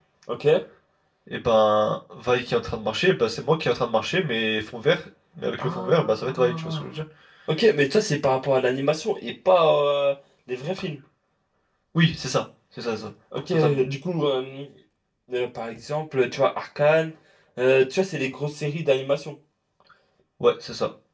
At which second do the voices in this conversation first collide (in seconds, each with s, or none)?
5.6 s